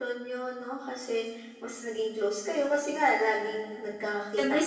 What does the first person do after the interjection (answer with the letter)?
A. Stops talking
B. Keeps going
A